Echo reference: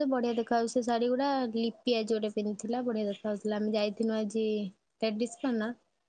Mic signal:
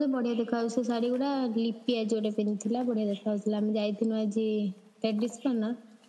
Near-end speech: none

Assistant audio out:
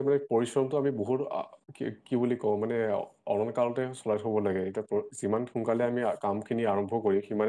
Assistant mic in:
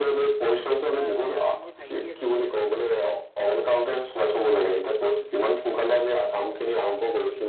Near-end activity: present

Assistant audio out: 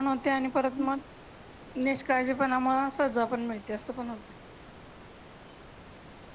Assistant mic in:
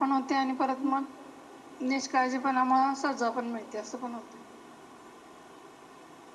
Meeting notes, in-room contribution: none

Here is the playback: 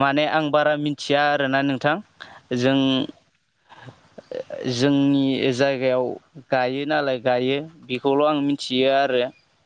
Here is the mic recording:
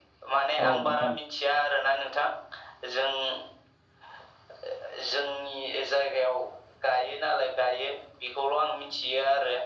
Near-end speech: present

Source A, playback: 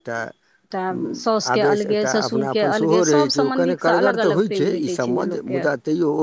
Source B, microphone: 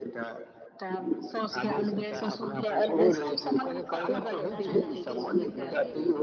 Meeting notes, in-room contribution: present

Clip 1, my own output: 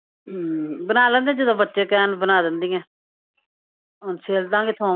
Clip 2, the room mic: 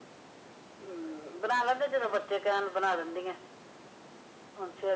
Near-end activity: none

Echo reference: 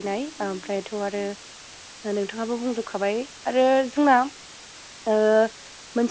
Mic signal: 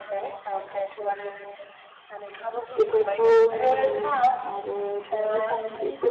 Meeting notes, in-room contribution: present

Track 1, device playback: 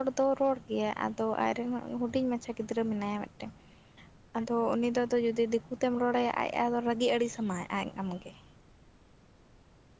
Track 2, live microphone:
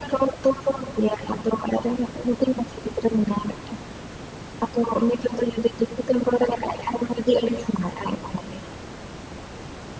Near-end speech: none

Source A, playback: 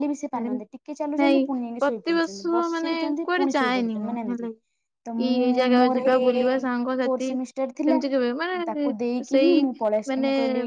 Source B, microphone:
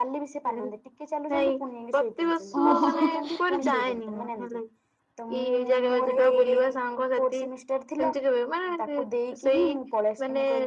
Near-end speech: present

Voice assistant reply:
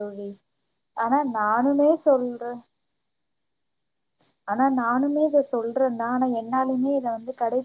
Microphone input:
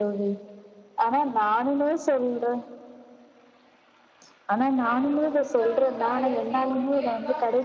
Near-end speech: present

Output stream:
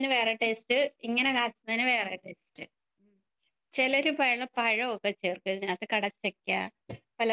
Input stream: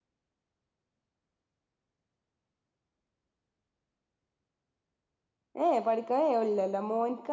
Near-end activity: present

